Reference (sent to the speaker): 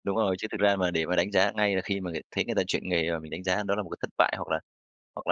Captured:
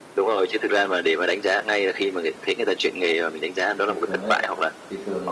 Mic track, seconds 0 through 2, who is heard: echo only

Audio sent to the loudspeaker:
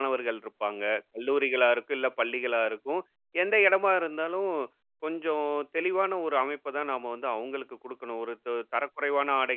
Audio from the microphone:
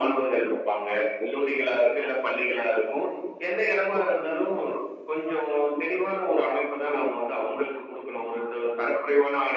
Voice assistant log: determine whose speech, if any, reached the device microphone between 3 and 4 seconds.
echo only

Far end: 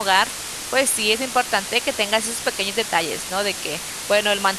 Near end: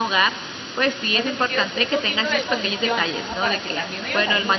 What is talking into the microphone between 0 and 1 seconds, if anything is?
echo only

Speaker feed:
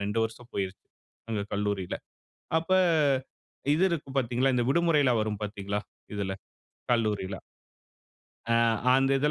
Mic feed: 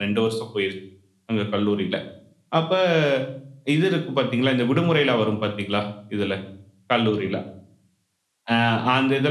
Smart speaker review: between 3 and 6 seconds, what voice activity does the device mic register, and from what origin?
echo only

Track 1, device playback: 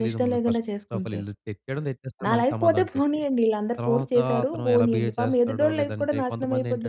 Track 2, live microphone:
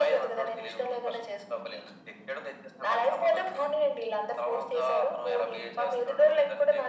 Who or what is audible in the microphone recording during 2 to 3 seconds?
echo only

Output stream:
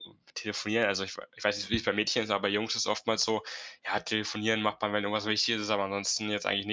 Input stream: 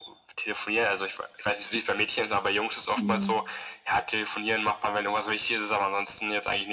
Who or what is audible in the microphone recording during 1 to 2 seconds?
echo only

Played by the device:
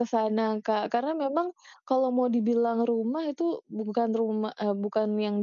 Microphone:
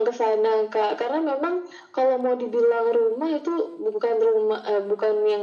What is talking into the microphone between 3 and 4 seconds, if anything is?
echo only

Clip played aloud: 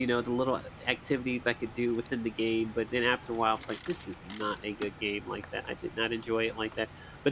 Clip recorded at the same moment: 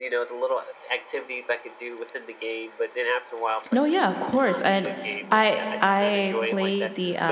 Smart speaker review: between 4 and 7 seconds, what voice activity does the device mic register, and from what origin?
both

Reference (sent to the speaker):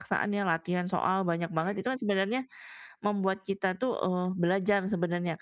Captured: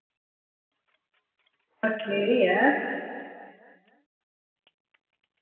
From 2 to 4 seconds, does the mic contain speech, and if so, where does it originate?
user only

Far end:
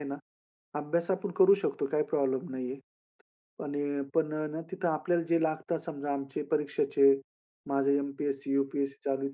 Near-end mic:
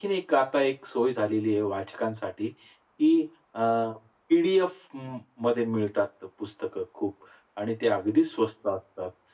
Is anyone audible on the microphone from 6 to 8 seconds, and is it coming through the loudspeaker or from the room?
user only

